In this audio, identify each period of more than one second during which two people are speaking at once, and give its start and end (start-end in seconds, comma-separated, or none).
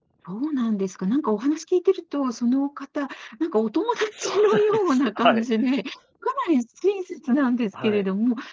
4.2-5.4